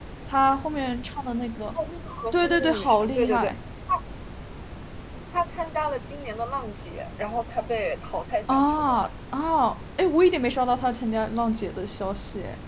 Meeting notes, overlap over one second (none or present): present